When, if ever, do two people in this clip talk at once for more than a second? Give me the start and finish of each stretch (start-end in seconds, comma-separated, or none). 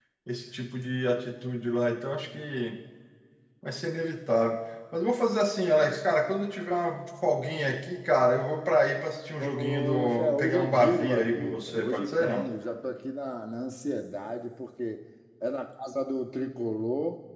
9.4-12.5